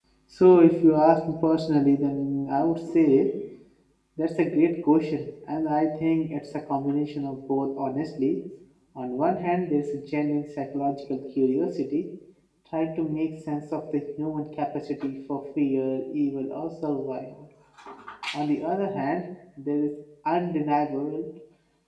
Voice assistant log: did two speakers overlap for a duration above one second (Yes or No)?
No